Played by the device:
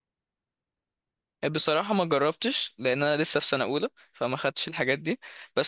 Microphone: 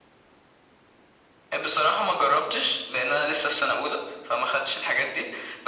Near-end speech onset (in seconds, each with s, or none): none